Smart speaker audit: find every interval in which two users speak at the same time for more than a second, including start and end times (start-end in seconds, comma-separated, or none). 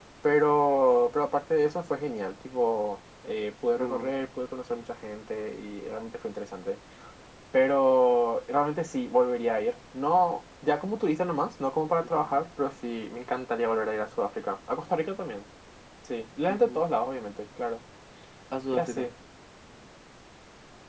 none